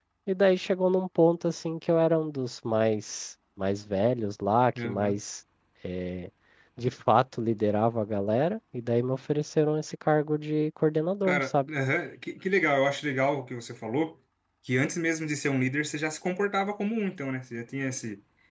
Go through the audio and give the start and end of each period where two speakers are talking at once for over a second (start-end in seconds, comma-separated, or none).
none